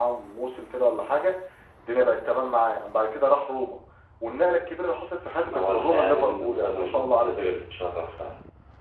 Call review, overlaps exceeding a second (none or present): present